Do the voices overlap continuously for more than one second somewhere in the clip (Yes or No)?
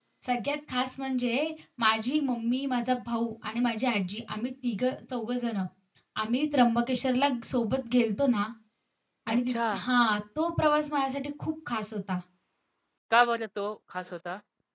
No